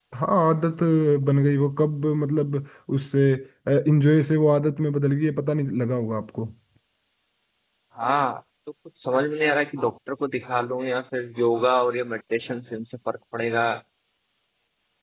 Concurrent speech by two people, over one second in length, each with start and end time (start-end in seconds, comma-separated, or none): none